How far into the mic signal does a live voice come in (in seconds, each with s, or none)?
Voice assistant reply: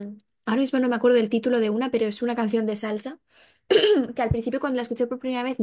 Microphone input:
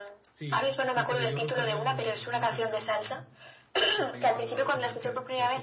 0.3 s